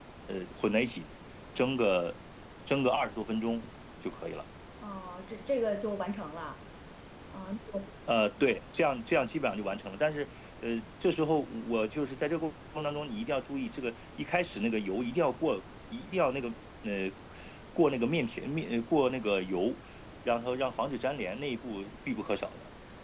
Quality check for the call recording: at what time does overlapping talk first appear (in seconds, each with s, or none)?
none